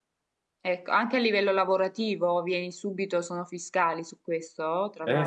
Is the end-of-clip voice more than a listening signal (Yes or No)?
Yes